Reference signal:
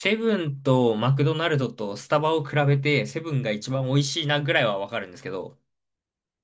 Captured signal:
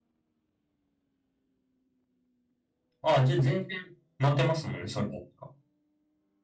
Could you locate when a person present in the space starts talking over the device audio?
3 s

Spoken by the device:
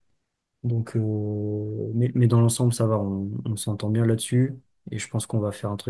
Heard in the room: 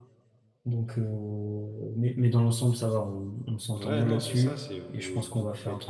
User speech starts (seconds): 4 s

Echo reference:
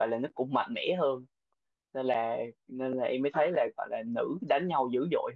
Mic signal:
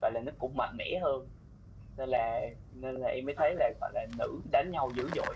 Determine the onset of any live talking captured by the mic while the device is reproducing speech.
none

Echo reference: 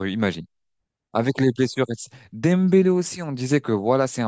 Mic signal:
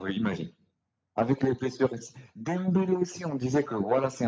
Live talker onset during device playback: none

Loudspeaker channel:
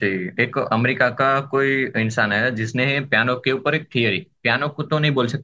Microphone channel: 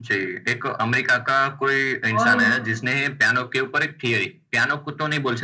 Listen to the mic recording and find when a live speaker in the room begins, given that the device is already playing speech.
2 s

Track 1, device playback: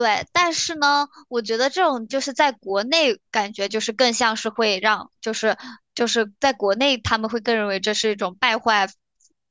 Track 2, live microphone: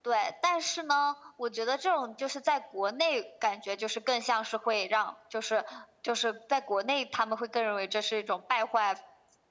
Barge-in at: none

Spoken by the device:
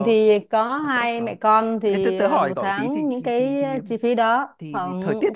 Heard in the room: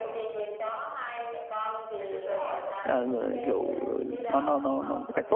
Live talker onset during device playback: 3 s

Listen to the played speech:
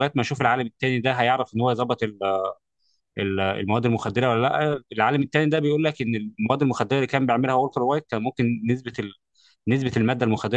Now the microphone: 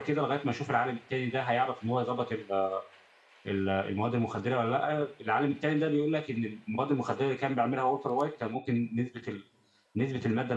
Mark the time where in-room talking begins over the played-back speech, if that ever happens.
none

